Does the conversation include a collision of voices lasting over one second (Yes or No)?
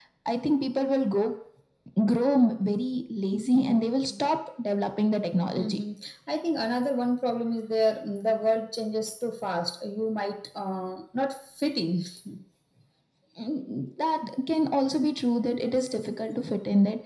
No